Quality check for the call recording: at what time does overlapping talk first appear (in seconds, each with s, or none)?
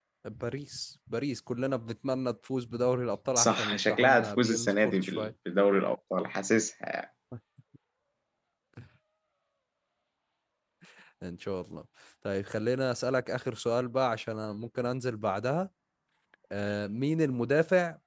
3.4 s